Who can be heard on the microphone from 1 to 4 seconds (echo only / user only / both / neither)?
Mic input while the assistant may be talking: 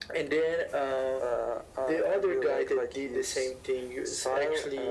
echo only